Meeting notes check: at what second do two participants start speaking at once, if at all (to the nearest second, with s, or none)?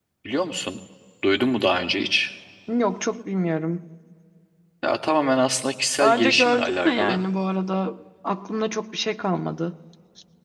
6 s